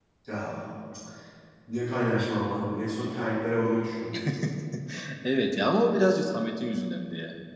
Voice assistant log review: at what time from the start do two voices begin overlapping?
none

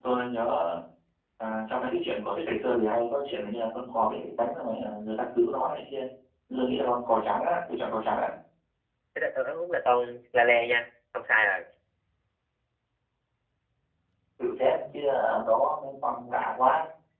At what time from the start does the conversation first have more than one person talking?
none

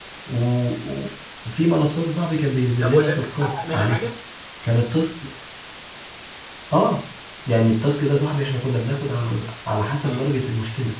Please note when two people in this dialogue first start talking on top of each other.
2.8 s

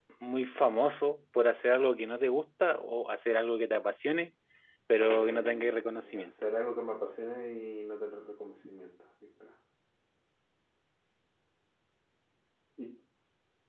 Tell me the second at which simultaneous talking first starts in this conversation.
5.1 s

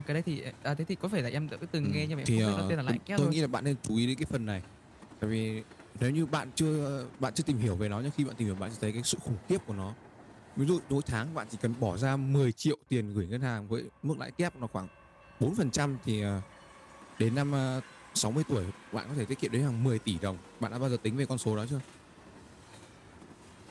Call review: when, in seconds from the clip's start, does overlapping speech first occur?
1.8 s

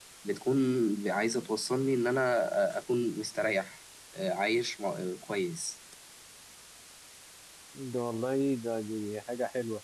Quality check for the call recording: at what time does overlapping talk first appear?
none

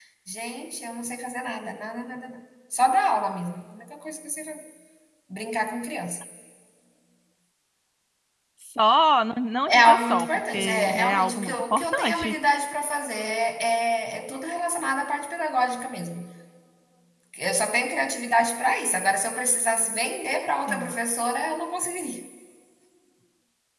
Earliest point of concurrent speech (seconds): 9.7 s

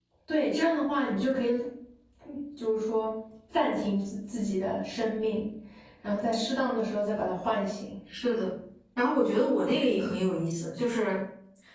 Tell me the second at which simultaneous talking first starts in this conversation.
none

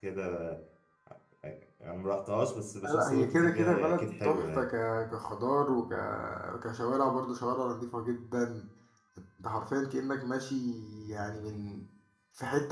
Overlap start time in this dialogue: 2.8 s

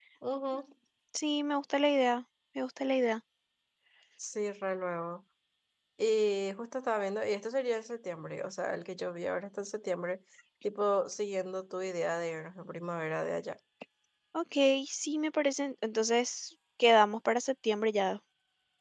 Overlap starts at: none

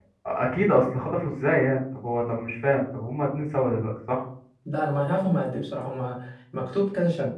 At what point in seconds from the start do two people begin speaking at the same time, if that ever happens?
none

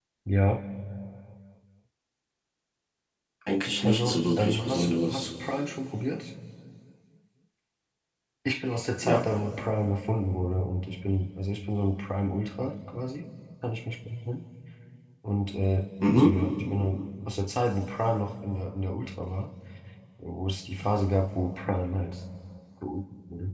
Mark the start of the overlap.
3.8 s

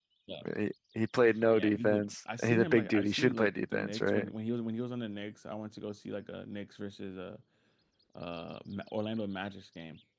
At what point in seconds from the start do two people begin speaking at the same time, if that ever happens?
1.2 s

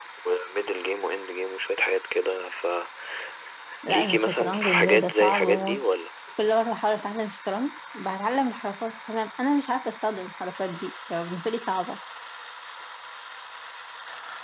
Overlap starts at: 4.1 s

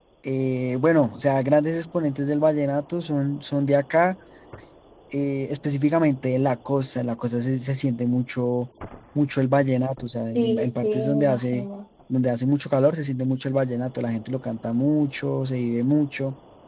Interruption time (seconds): 10.4 s

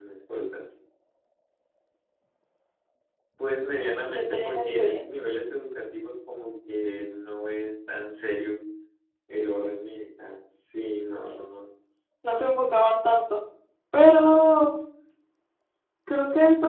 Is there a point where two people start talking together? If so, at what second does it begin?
3.8 s

